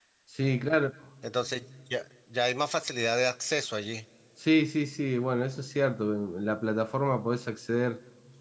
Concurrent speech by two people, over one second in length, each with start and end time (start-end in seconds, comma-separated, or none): none